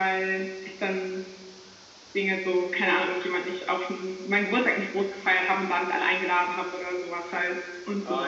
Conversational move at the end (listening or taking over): taking over